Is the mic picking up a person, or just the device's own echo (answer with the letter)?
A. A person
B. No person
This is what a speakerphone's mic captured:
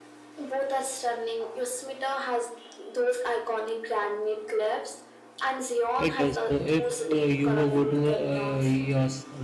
A